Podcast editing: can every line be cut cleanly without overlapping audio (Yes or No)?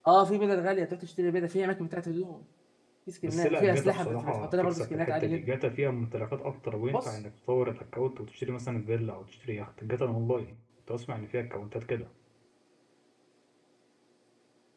No